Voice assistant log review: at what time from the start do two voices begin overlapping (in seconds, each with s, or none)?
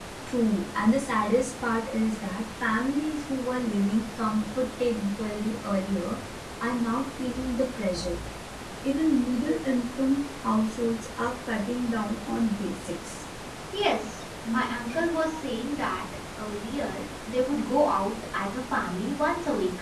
none